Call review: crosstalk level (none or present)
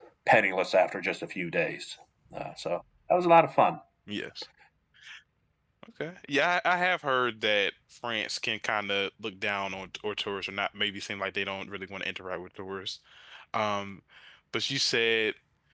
none